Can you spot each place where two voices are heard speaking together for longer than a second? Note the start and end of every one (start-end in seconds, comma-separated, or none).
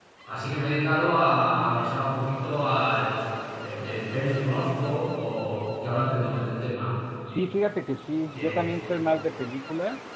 none